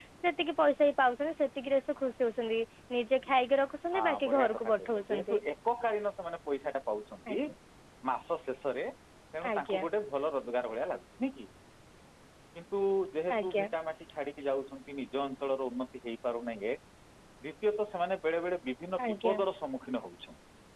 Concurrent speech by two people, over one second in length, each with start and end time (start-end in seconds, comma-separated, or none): 4.0-5.4